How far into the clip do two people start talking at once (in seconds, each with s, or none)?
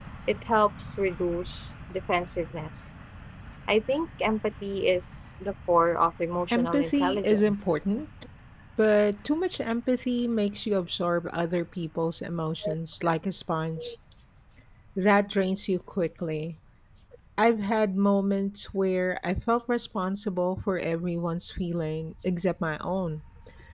6.5 s